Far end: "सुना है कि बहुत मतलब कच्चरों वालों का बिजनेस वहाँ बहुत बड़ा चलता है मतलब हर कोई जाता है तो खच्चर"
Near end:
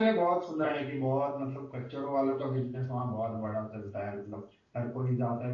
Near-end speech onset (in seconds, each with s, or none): none